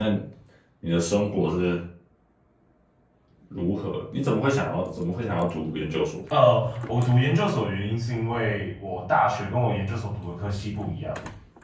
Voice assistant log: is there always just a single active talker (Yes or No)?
Yes